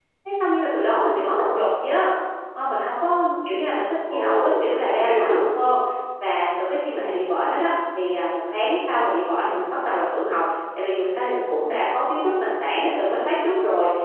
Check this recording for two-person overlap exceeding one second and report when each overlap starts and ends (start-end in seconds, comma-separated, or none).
4.1-5.5